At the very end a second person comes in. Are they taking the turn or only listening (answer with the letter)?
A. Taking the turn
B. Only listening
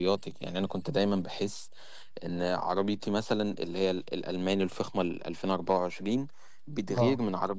B